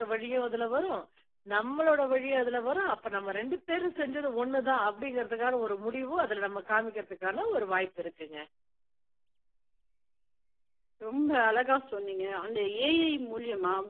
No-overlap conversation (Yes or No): Yes